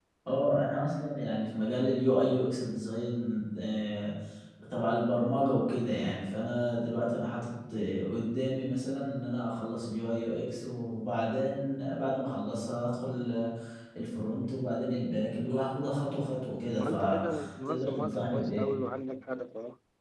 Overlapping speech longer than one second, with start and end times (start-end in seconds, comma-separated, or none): 16.8-18.6